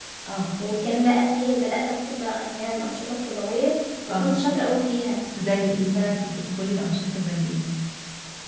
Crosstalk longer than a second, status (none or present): none